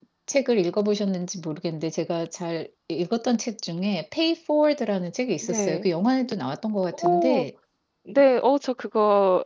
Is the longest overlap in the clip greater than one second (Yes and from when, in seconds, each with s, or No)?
No